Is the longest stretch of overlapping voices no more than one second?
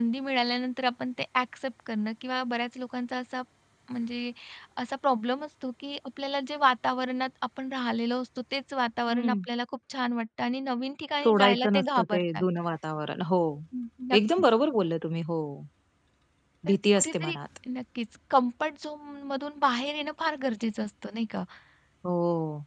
No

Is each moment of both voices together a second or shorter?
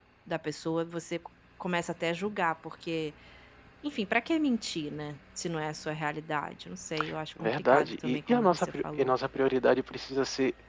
No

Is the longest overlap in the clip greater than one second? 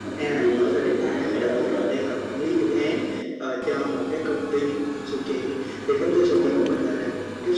Yes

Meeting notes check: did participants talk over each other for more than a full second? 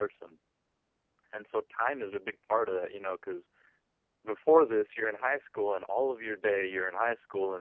No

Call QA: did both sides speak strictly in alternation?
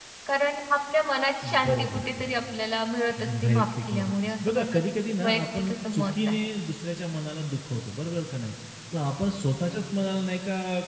No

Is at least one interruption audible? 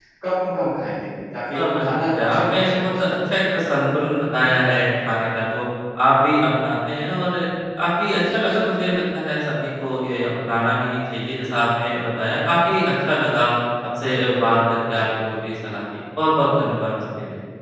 Yes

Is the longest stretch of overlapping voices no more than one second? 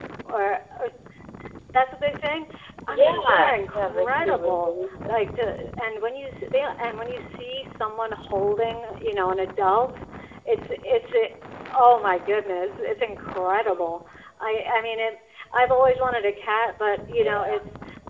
No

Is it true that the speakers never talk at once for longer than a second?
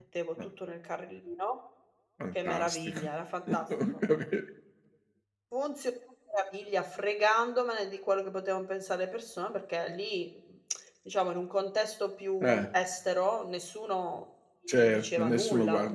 No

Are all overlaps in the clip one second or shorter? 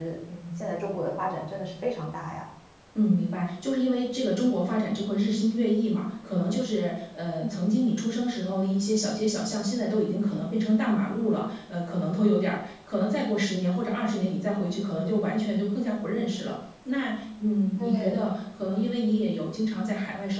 Yes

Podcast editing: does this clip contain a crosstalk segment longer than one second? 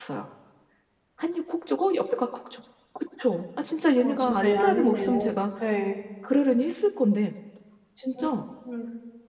Yes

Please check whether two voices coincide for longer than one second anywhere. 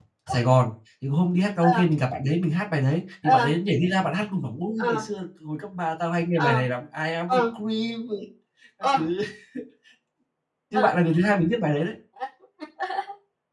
No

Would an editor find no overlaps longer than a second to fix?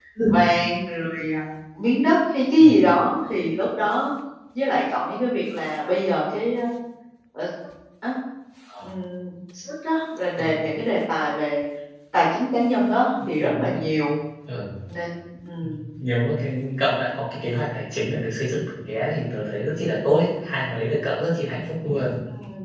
Yes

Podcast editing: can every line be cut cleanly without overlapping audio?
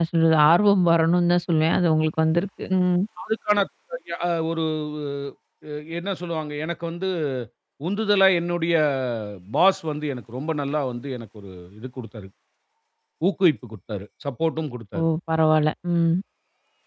Yes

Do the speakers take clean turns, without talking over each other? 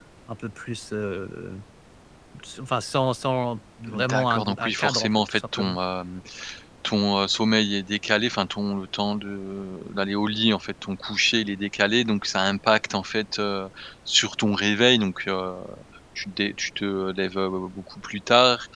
No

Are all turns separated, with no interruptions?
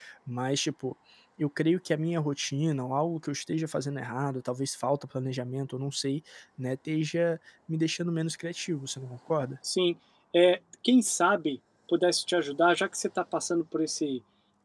Yes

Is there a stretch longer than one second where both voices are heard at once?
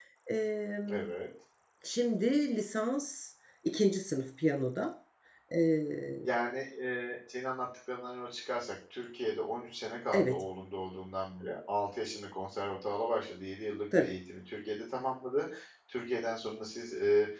No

